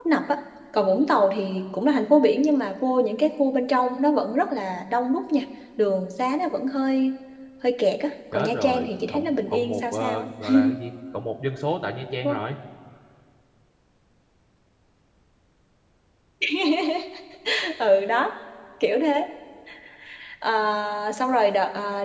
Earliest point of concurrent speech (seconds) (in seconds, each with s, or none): 8.3 s